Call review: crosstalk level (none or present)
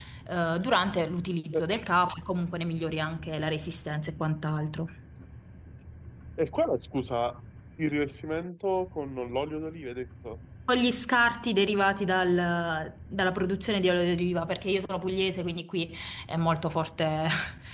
none